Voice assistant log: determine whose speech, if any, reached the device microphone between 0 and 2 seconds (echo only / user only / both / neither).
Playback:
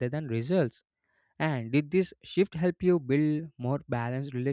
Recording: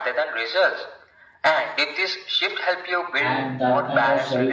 echo only